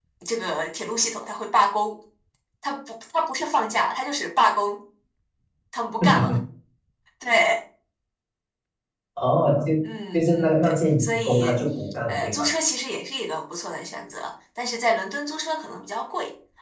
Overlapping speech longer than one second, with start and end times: 10.1-11.6

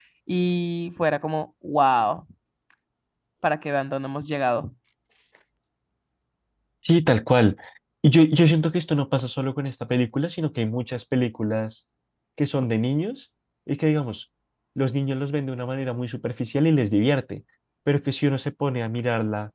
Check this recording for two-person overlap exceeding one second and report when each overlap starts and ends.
none

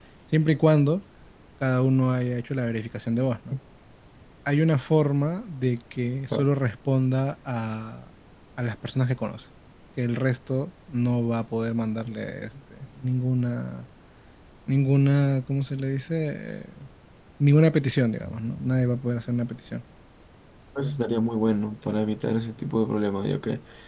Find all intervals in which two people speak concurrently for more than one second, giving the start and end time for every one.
none

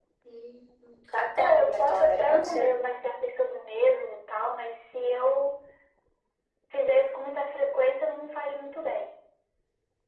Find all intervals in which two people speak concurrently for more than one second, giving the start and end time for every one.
1.4-2.7

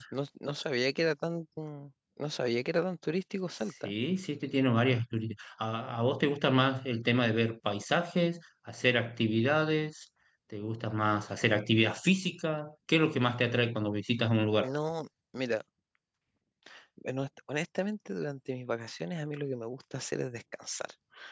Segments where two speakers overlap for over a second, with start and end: none

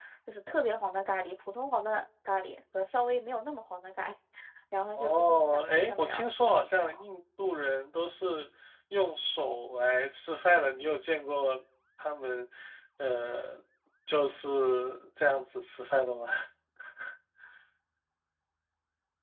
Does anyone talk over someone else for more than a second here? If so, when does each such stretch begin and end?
5.0-6.9

